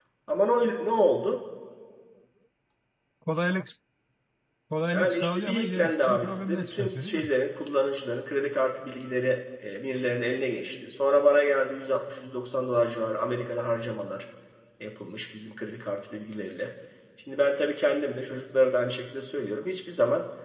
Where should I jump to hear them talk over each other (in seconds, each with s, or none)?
4.9 s